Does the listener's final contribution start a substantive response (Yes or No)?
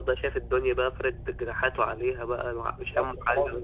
Yes